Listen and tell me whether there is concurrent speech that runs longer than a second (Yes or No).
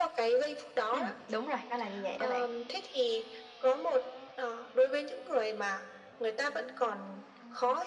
No